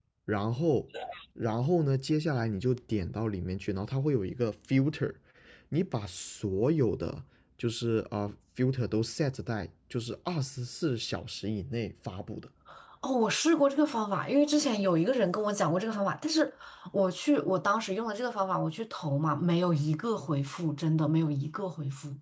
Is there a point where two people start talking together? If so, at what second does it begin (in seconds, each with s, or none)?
none